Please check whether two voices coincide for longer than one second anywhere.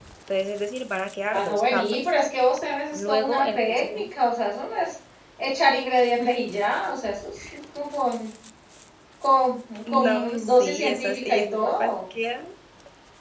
Yes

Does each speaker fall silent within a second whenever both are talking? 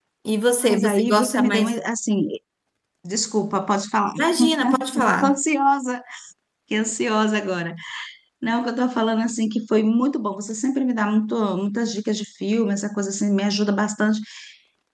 No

